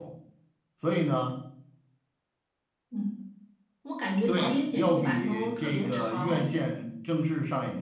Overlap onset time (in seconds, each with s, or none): 4.3 s